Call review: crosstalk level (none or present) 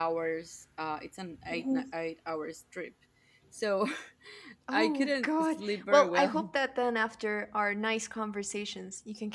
present